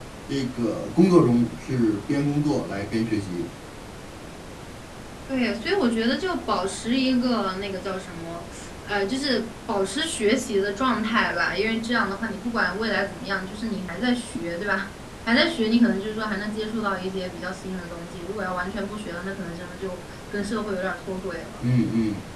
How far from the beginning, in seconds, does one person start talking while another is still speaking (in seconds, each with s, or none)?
none